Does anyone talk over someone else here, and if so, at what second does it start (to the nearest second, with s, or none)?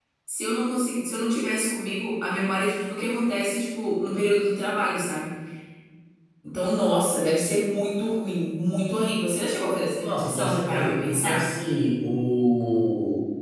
10 s